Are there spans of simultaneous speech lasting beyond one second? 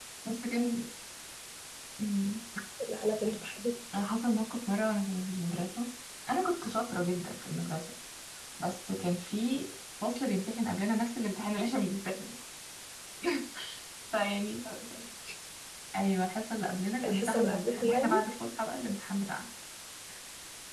Yes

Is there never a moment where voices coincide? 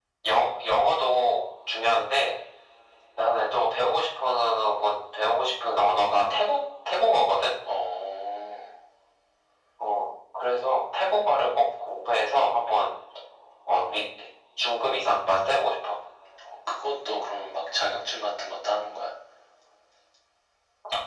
Yes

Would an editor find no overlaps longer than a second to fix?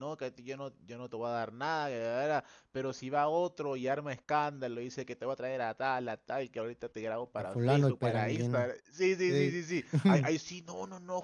No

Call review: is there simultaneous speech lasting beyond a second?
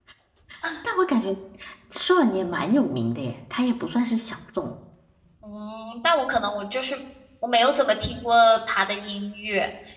No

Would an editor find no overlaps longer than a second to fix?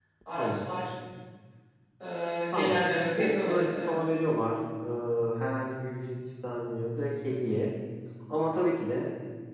No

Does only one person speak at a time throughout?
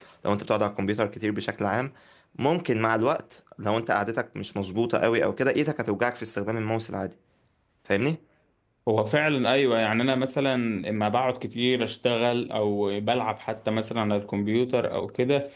Yes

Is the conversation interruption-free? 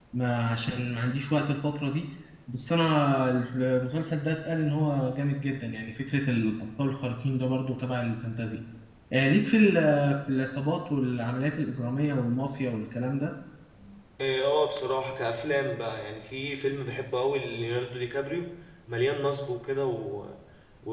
Yes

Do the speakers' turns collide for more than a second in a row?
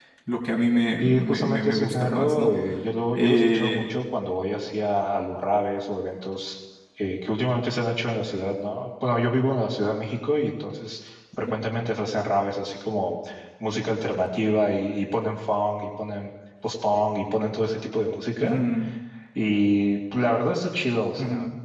Yes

